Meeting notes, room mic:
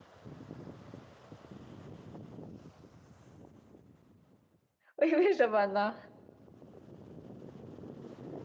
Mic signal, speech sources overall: user only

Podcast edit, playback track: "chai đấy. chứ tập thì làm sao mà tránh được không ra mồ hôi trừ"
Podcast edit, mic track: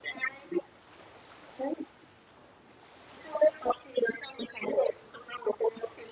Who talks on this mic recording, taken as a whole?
echo only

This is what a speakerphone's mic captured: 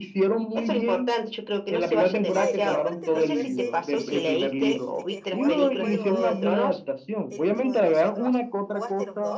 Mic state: both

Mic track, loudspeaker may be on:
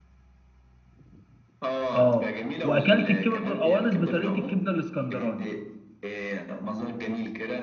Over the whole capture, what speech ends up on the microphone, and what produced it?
both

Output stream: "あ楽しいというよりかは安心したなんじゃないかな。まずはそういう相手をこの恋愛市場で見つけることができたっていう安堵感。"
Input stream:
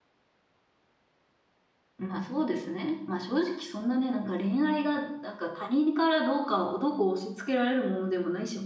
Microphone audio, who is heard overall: user only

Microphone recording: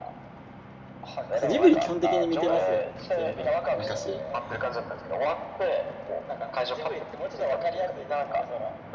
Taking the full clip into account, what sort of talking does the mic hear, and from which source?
both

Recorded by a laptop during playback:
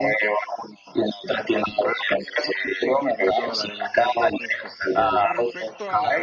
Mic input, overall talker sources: both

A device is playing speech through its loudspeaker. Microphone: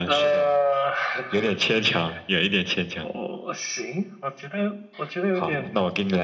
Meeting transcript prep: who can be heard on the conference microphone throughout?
echo only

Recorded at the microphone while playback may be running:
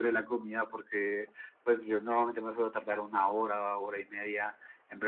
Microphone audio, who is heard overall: echo only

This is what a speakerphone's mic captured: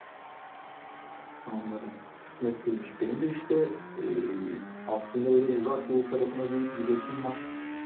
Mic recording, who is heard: echo only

